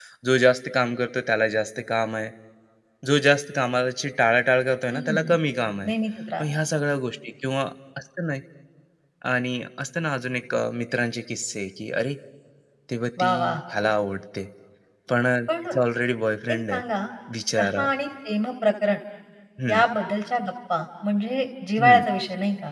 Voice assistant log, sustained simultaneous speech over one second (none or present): none